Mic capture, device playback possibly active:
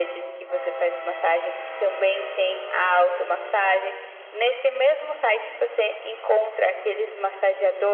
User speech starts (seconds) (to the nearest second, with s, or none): none